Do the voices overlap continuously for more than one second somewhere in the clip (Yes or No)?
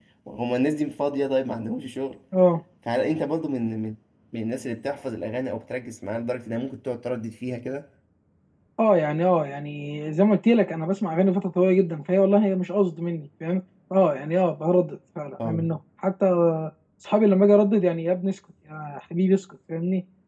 No